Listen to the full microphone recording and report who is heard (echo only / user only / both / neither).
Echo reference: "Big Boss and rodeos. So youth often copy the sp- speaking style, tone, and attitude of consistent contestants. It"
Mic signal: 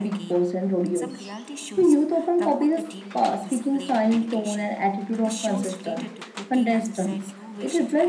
both